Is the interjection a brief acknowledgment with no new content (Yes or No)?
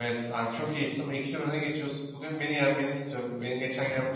Yes